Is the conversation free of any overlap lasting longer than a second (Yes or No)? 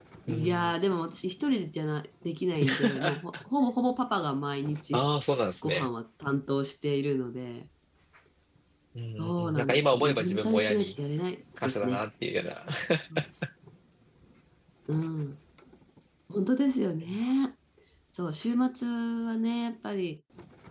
No